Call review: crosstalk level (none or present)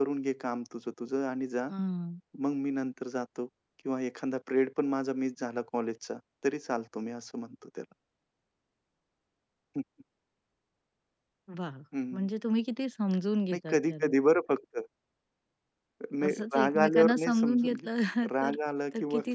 present